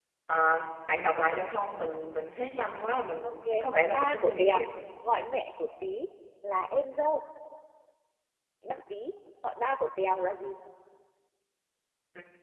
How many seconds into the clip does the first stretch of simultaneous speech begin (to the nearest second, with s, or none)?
3 s